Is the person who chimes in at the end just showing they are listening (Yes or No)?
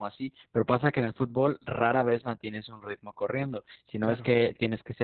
Yes